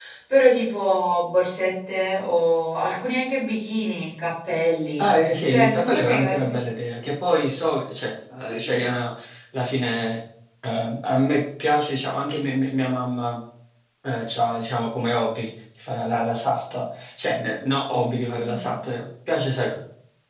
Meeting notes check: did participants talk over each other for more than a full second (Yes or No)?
Yes